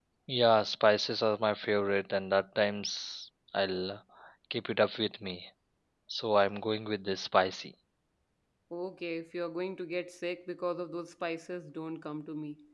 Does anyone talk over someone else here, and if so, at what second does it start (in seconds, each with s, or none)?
none